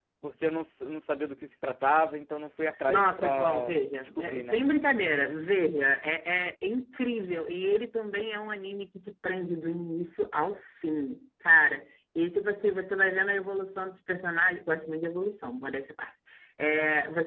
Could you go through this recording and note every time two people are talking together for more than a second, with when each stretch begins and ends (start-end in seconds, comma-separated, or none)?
2.9-4.6